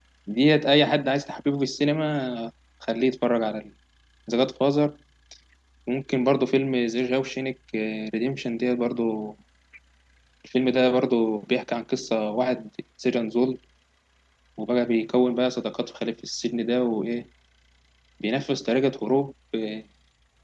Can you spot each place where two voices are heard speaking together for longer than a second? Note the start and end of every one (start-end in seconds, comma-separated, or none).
none